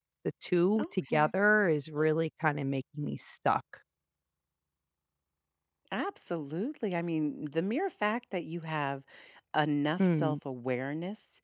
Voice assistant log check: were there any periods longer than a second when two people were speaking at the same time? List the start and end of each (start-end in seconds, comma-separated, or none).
none